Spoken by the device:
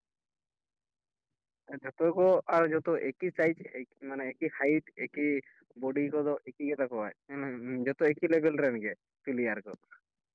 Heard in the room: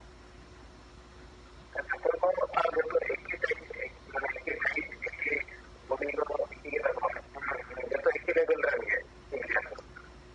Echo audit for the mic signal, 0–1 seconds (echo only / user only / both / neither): neither